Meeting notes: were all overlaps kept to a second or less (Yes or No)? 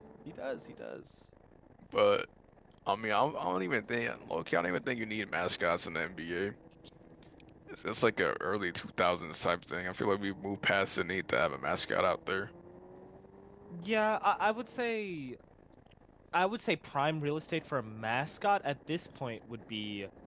Yes